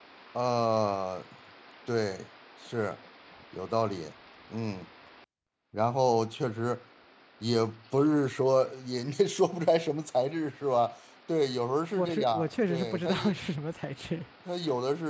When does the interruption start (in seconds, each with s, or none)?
11.9 s